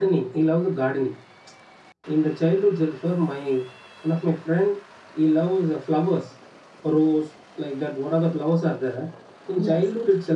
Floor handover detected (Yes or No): No